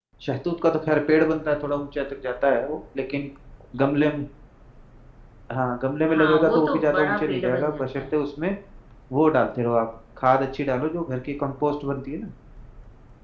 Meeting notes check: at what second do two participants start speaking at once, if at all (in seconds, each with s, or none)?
6.1 s